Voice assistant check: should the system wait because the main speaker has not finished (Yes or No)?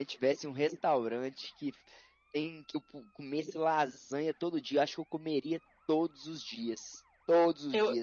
Yes